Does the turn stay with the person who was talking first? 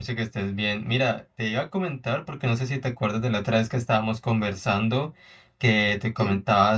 Yes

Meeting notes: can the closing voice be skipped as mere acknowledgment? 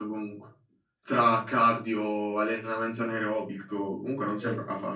No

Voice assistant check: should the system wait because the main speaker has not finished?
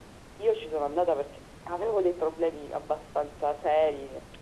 No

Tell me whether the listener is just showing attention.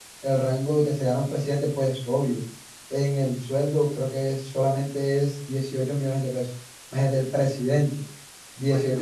Yes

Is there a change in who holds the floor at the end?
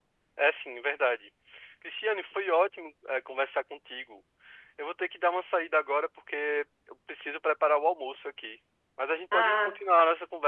No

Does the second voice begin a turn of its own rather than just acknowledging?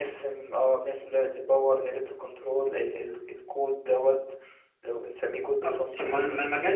Yes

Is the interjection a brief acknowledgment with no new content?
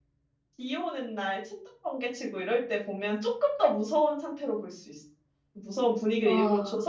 Yes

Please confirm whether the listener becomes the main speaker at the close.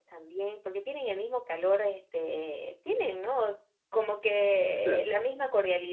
No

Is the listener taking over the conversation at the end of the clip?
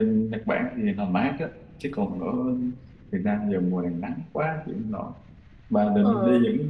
No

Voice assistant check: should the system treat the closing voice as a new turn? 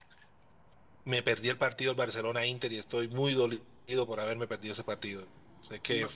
No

